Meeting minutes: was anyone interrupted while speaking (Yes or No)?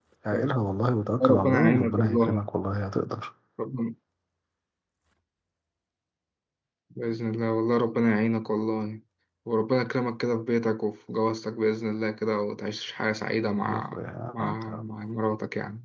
Yes